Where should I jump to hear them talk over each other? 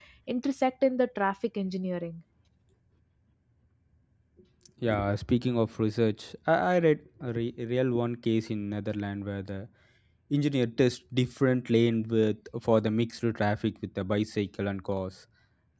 none

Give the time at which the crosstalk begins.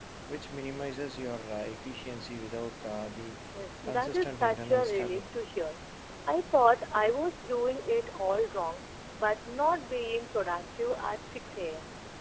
3.9 s

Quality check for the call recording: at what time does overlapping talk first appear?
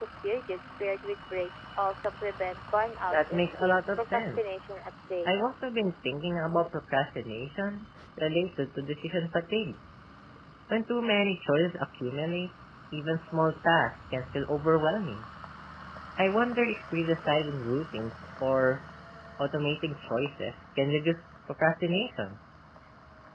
3.1 s

